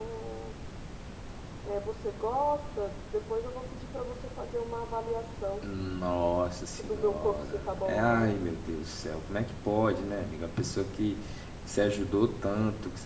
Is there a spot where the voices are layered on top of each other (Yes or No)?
Yes